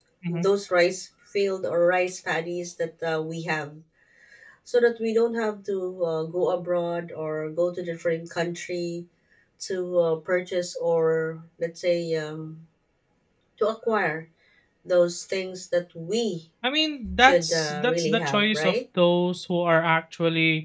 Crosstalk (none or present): present